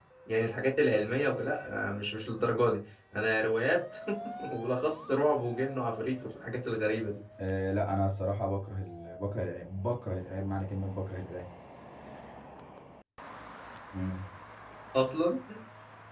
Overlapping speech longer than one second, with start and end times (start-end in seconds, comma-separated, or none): none